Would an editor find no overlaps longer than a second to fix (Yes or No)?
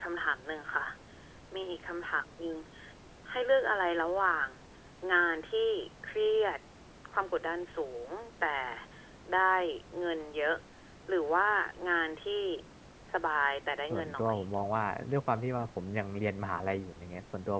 Yes